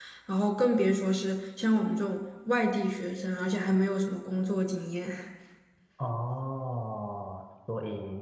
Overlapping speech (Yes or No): No